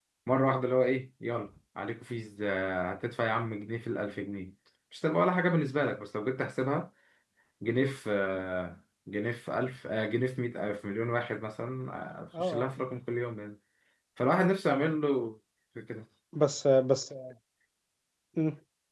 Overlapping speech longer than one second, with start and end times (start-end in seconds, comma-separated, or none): none